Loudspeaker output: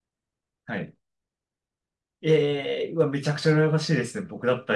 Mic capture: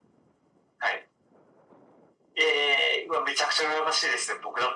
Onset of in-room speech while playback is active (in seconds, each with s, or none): none